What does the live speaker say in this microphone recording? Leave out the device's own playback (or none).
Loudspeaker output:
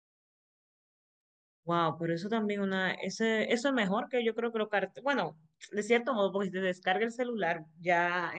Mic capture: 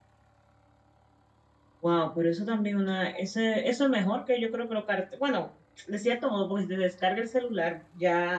none